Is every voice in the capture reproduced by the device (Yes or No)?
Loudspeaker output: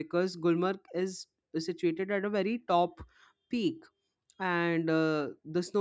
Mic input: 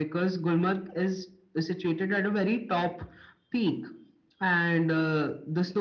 Yes